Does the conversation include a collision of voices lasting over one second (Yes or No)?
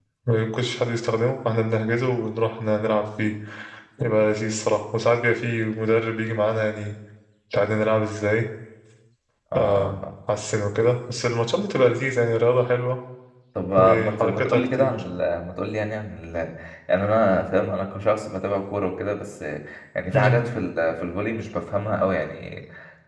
Yes